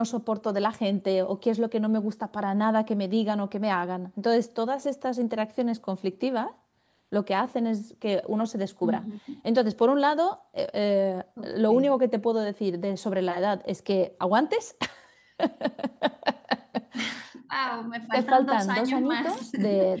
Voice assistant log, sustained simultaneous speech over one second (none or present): present